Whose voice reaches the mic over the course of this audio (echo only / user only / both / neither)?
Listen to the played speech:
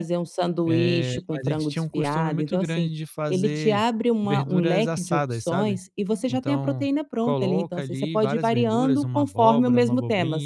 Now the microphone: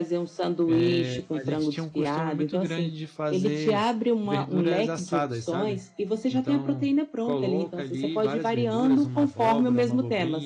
echo only